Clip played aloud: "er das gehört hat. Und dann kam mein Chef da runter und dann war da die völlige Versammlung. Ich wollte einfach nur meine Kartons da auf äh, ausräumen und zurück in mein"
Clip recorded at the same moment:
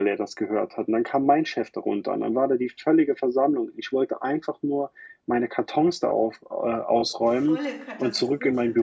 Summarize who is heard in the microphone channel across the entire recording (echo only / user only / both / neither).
both